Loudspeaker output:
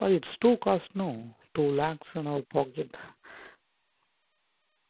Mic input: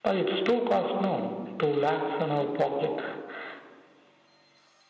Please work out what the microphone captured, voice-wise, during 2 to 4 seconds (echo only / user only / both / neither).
echo only